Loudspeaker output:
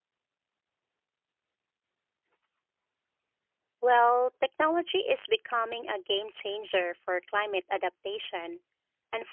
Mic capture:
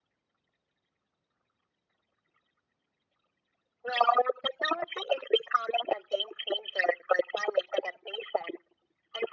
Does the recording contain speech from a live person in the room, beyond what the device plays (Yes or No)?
No